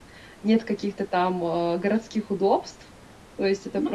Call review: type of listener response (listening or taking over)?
listening